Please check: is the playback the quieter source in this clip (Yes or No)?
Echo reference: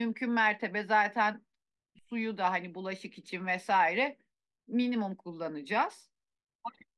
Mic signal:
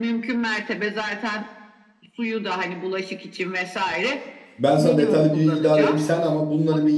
Yes